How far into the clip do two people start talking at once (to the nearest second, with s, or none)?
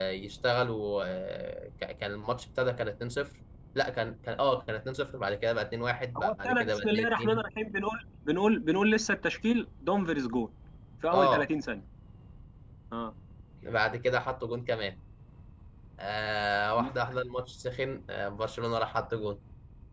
6 s